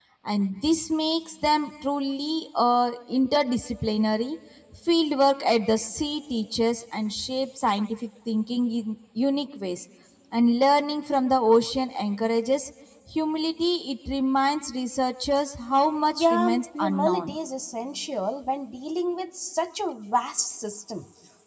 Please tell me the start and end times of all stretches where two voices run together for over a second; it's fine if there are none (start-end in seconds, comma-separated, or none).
16.1-17.4